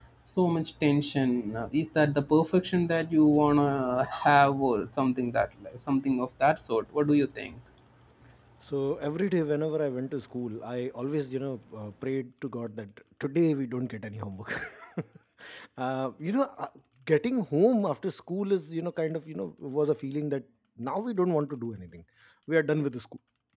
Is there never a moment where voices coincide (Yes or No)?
Yes